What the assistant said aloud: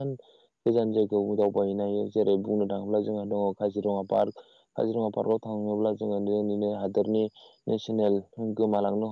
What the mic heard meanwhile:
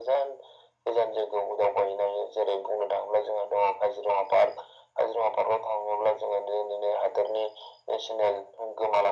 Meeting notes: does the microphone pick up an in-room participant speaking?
No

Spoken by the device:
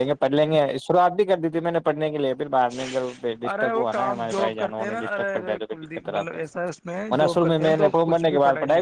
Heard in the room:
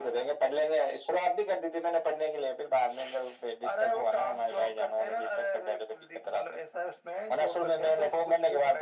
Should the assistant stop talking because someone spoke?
No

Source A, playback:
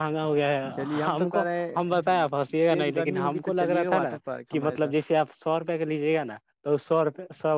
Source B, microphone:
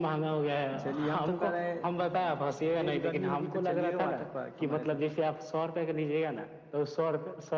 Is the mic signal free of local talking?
Yes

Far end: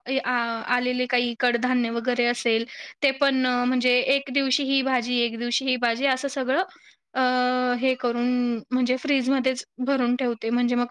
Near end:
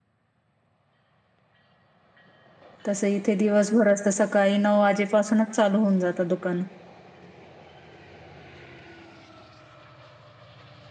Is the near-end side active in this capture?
Yes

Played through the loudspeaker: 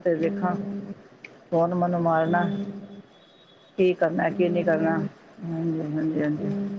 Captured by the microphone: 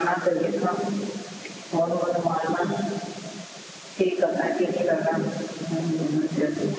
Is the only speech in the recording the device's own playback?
Yes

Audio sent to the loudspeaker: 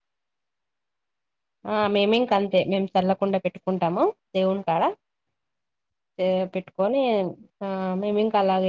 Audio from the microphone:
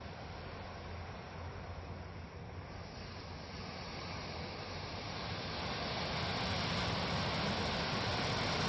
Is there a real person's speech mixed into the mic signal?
No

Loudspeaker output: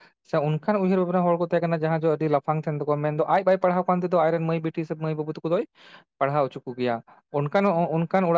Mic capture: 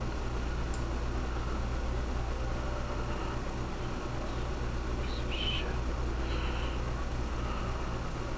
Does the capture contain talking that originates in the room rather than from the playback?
No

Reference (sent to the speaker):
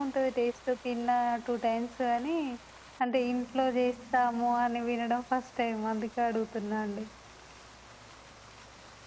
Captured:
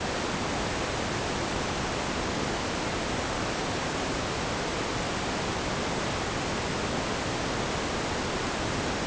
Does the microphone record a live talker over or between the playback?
No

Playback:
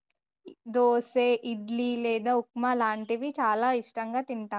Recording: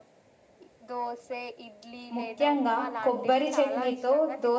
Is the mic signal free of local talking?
No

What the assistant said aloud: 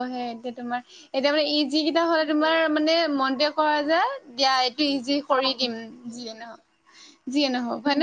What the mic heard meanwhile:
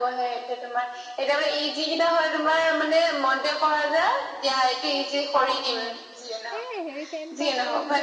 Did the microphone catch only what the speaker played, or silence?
No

